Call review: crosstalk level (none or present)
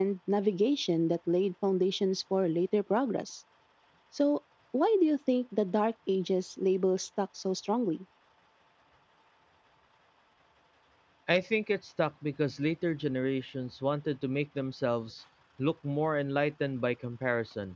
none